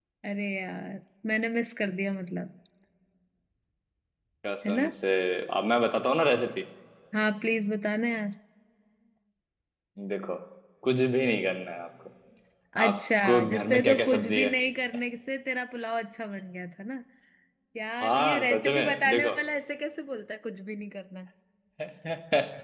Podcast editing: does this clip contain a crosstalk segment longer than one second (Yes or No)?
Yes